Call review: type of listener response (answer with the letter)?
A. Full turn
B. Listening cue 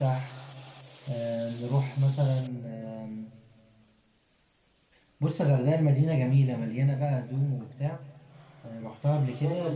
A